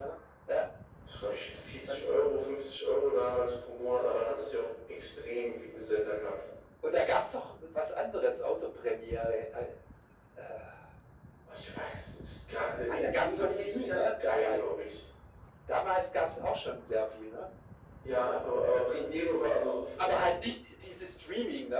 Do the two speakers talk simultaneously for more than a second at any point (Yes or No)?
Yes